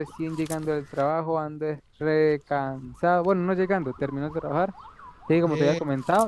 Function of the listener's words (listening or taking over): listening